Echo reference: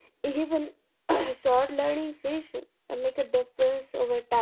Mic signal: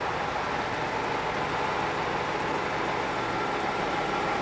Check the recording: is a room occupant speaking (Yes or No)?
No